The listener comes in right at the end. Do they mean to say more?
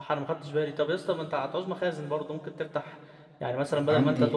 No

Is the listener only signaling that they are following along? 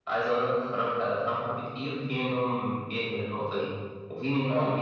Yes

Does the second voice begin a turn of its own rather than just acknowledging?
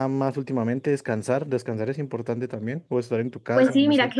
Yes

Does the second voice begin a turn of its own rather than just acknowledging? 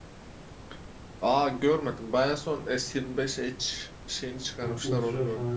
Yes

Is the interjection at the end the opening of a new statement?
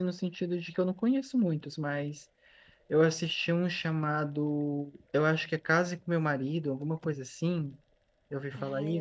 Yes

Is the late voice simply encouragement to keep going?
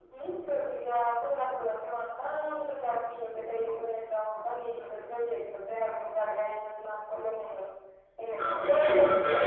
No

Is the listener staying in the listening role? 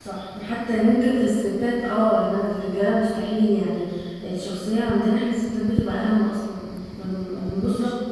Yes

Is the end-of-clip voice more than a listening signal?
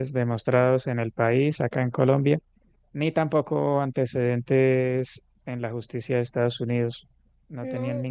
No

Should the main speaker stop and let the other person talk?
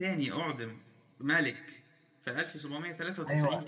Yes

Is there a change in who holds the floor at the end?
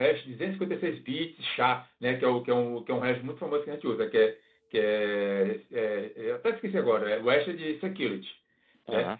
No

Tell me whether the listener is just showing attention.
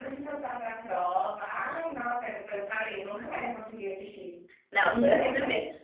No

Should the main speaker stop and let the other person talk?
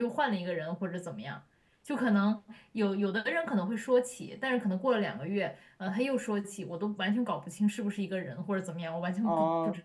Yes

